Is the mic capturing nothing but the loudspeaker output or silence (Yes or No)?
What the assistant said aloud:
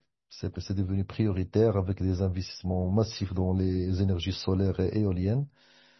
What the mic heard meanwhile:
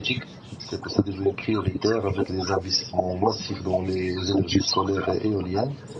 Yes